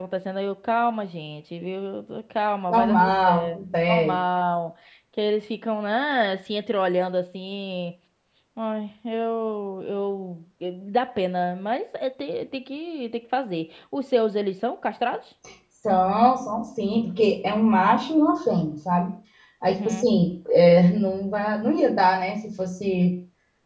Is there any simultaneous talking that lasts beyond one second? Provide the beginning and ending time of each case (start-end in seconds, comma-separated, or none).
2.7-4.2